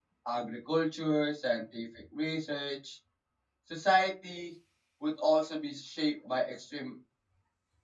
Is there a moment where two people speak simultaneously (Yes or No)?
No